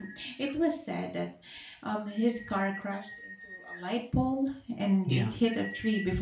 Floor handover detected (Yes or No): No